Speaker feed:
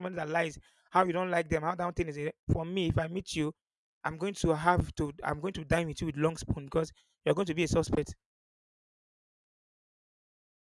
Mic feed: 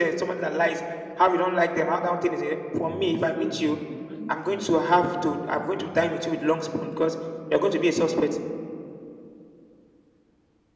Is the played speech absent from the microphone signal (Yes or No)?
No